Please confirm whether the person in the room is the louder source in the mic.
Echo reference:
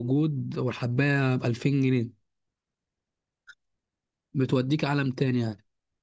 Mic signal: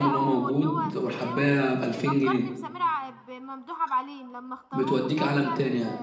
No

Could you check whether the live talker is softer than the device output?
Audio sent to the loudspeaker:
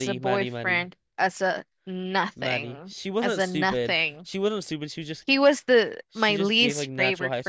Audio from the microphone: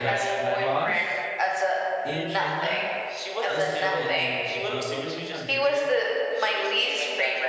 Yes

